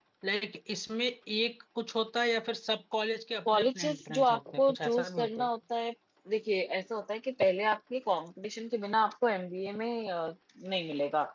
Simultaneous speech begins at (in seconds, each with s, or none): 3.5 s